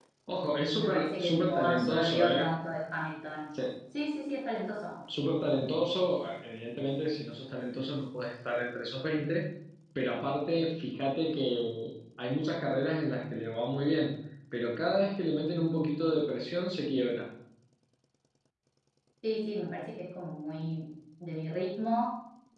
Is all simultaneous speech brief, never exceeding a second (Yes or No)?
No